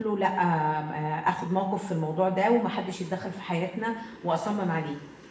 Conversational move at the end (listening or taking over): taking over